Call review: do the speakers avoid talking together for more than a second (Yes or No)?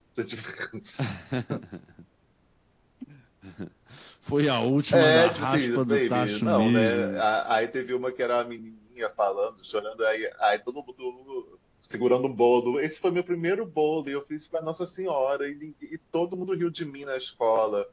No